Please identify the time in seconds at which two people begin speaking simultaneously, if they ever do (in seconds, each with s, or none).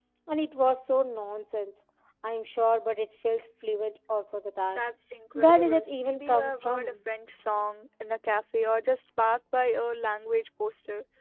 5.3 s